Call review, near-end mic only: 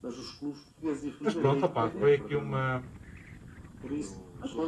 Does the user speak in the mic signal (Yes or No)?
Yes